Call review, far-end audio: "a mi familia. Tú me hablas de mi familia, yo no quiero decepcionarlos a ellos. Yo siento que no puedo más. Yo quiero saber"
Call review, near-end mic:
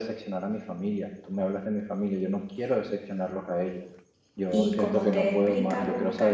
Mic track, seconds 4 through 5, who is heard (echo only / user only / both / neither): both